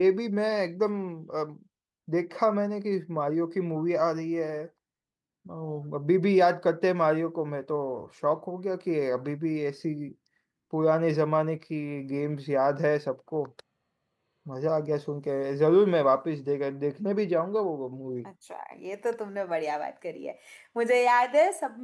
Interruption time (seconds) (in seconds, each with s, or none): none